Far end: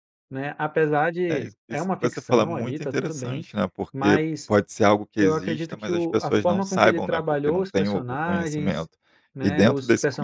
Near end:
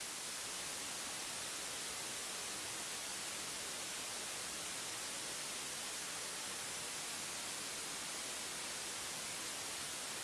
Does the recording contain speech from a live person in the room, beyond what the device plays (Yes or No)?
No